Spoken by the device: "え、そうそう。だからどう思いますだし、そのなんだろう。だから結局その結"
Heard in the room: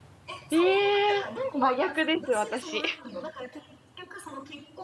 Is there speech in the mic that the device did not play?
Yes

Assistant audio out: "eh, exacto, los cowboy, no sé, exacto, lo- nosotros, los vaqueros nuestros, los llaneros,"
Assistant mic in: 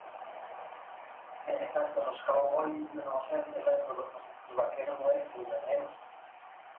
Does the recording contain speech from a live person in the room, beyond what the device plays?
No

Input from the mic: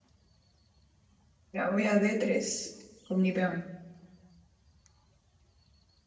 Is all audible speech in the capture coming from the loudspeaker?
No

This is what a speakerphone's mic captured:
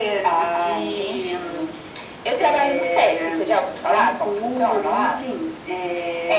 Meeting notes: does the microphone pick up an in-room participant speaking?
No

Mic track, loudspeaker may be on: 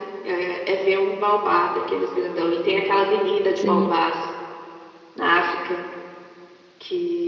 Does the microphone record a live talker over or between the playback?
Yes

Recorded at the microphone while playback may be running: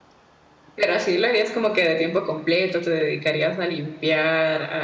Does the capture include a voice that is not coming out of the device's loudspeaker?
Yes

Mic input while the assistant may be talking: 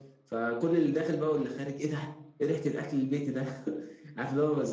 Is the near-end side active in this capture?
No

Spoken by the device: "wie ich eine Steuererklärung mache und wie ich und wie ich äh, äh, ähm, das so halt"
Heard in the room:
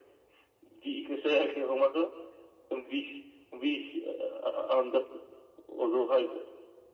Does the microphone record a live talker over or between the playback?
No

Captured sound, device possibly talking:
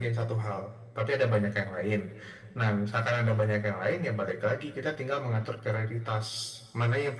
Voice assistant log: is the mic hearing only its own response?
Yes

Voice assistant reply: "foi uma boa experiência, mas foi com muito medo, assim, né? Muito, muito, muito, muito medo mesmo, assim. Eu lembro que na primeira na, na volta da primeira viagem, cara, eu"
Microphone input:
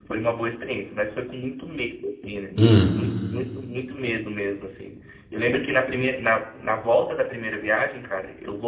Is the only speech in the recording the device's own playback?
No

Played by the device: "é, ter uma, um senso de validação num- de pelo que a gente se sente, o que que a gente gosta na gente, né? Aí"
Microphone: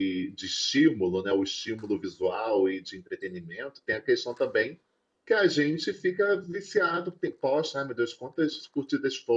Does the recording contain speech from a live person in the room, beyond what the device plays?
Yes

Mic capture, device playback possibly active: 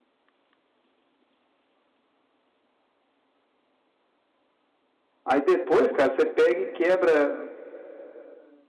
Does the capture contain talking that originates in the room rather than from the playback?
Yes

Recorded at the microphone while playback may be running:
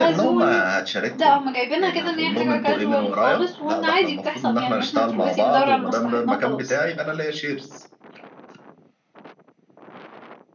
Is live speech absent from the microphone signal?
No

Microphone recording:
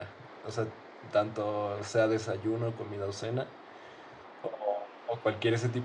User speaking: Yes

